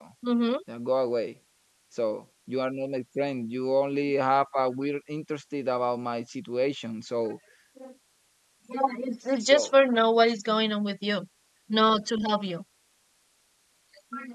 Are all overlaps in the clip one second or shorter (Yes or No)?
Yes